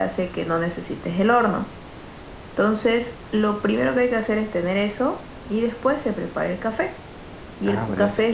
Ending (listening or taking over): listening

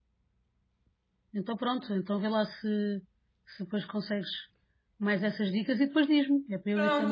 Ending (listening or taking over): taking over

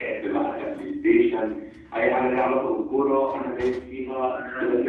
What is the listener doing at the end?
taking over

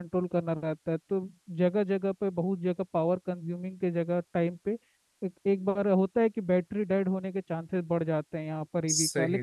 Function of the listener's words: listening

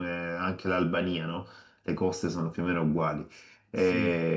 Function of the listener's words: taking over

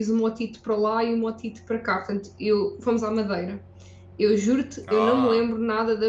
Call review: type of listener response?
listening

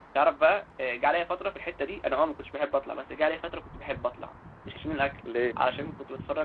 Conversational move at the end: listening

